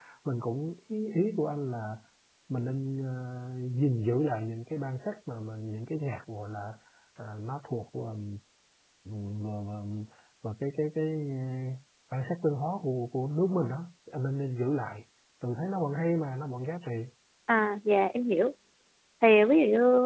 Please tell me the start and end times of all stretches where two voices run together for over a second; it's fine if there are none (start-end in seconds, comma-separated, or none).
none